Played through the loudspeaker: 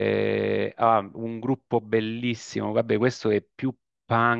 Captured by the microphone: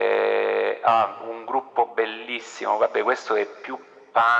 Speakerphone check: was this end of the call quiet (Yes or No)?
Yes